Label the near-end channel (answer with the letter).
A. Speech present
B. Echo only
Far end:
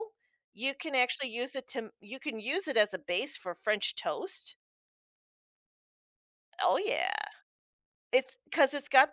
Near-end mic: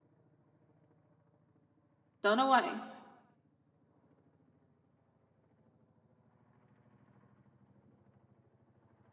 A